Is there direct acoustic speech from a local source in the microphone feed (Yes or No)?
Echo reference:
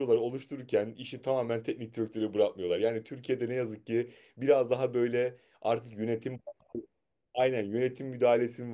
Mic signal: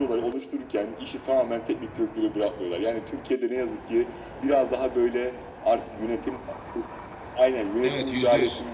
Yes